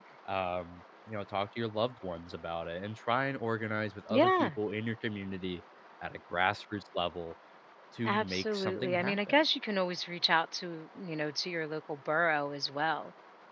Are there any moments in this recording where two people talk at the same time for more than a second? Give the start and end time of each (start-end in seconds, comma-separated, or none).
8.0-9.4